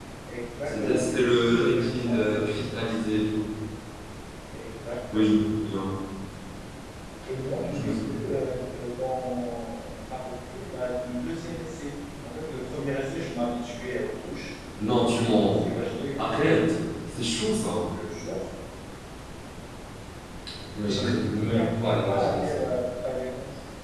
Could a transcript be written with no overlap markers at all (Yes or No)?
No